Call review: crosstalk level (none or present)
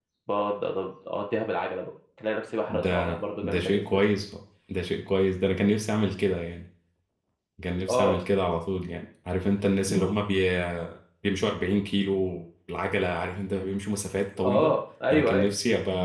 present